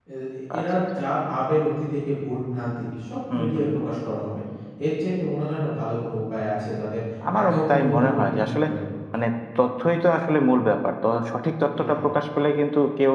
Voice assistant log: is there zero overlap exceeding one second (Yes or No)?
No